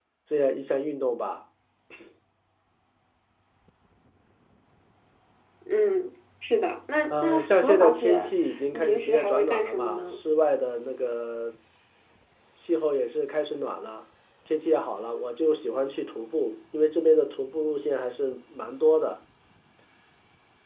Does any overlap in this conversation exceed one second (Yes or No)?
Yes